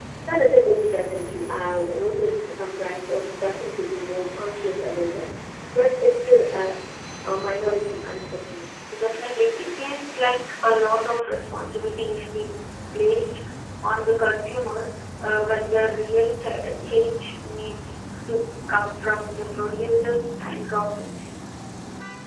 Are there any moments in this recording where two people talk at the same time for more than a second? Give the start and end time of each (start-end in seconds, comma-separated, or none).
none